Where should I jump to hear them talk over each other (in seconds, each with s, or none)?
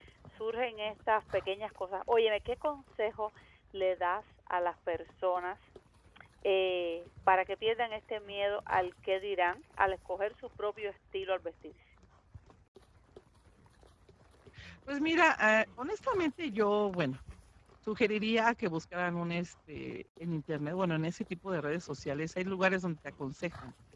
none